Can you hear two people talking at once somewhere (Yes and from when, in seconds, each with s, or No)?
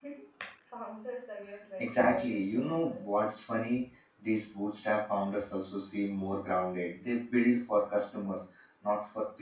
Yes, from 1.8 s